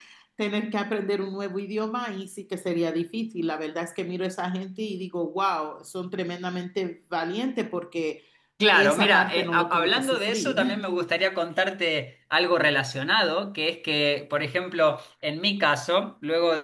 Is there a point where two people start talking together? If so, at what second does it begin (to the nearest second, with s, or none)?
9 s